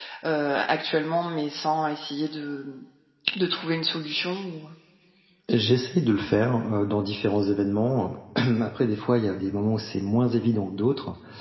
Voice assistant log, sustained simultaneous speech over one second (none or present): none